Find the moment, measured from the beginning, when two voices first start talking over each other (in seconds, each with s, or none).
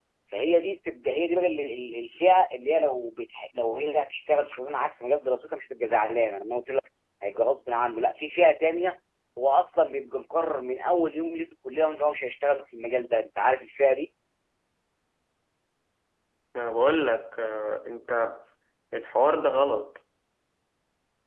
none